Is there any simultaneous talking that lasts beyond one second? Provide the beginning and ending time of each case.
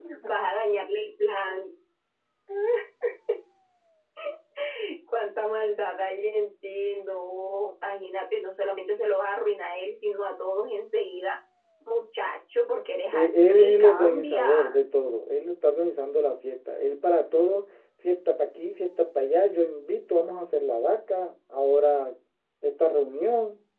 13.1-14.7

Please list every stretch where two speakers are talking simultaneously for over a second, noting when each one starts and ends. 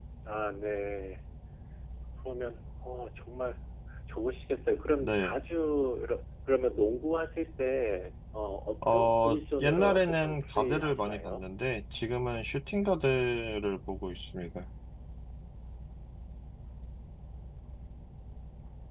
8.9-11.4

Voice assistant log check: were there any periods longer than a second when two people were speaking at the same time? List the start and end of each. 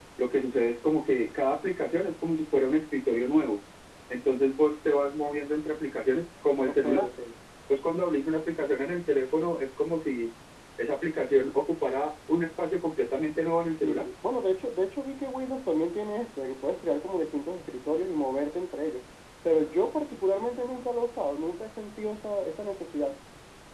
none

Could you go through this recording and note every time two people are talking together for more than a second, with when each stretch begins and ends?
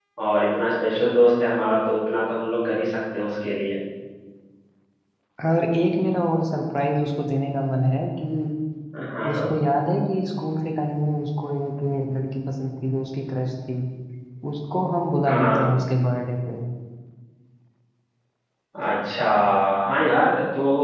none

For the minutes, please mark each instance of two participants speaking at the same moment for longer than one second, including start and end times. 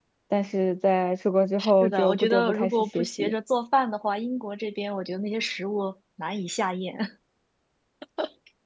1.6-3.4

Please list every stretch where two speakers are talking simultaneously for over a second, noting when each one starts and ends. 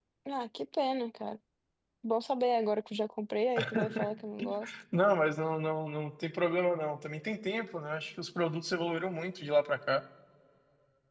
none

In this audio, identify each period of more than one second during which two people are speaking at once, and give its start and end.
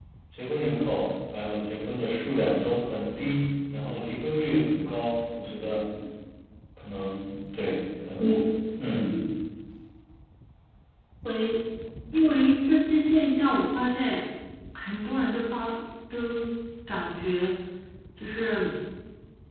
none

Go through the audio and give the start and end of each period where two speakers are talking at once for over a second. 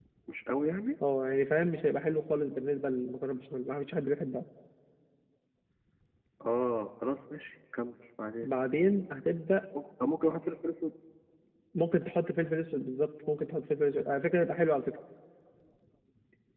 none

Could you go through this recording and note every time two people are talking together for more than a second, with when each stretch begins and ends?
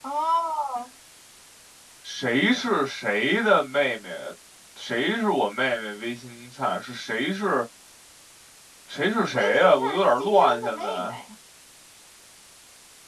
9.3-11.1

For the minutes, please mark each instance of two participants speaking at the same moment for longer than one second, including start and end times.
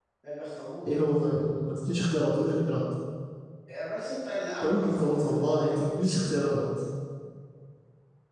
4.6-6.2

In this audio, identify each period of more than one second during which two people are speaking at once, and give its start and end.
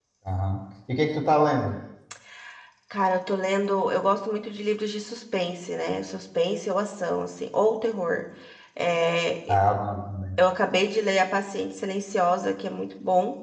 none

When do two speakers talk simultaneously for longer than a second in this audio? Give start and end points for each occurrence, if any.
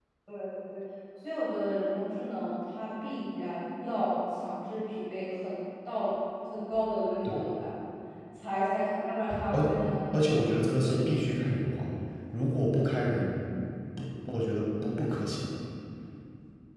none

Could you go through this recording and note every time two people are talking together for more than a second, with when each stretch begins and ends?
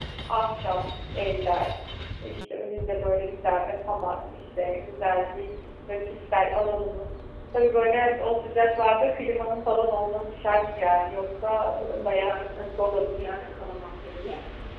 11.8-13.4

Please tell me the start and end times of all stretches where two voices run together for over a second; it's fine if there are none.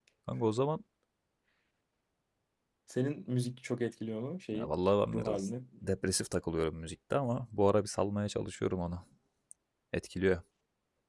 none

